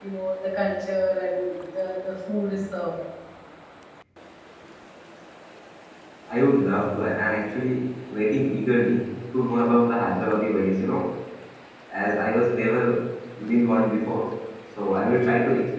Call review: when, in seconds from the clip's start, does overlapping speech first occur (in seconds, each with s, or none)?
none